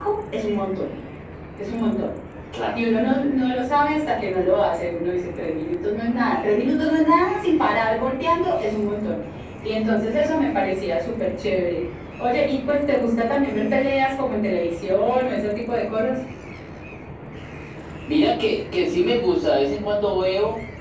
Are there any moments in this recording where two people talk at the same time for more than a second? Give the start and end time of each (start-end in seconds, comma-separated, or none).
none